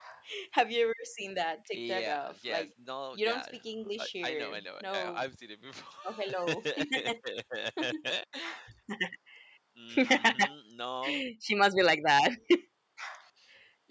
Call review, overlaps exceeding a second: present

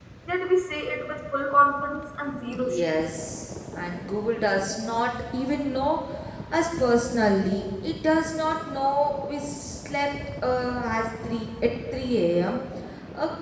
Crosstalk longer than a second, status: none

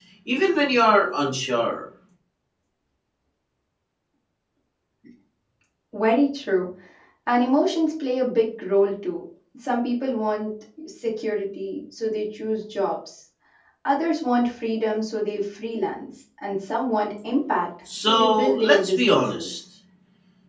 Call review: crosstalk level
present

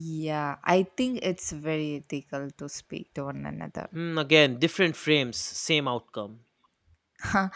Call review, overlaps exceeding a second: none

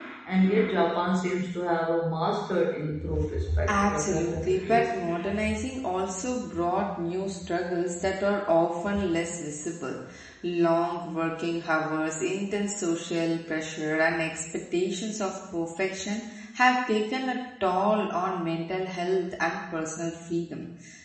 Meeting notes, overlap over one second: present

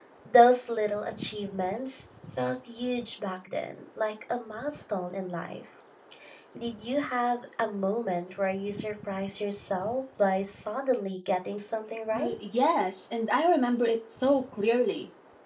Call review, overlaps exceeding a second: none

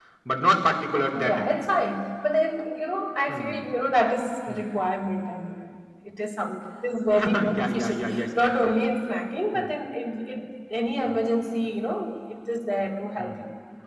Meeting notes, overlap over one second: present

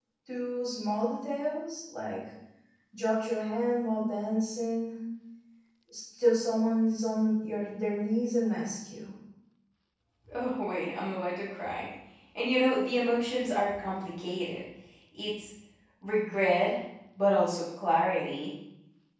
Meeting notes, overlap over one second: none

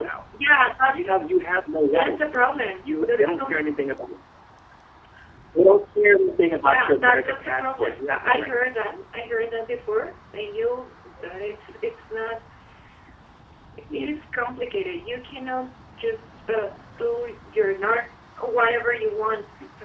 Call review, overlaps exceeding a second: present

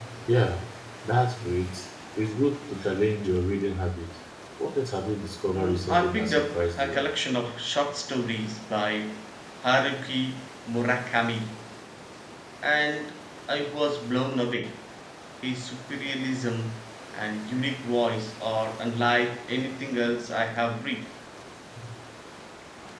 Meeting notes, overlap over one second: present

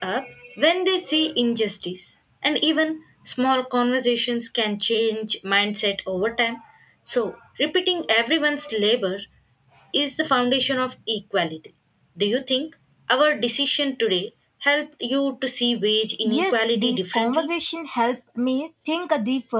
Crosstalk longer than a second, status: present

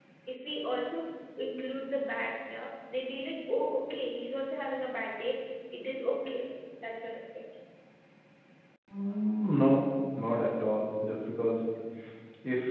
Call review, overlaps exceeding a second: none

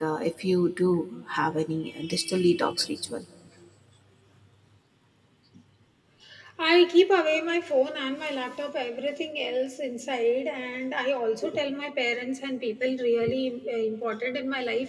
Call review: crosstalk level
none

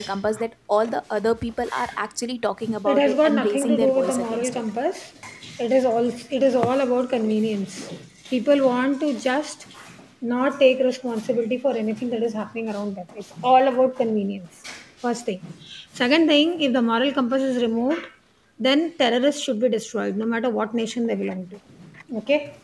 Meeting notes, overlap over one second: present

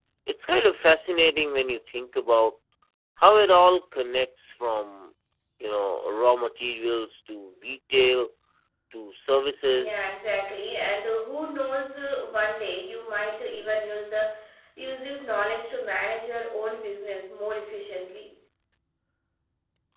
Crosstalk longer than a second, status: none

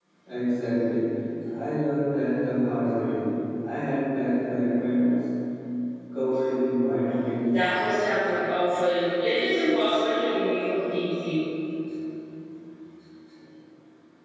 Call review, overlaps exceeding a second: none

